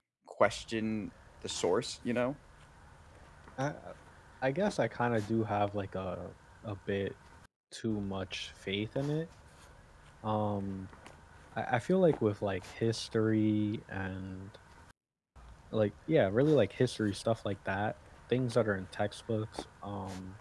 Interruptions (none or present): none